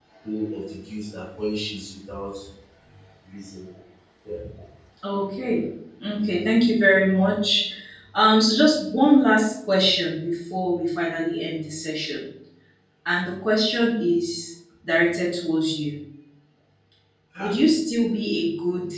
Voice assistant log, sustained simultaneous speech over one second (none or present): none